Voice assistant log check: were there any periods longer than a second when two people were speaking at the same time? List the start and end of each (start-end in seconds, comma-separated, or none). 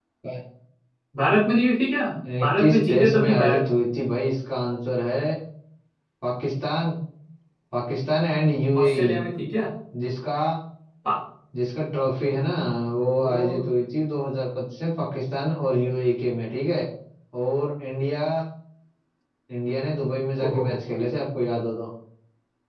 2.4-3.6